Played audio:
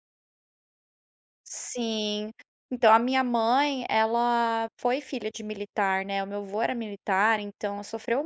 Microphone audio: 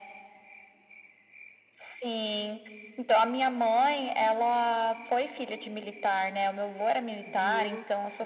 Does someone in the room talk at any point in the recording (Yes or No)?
Yes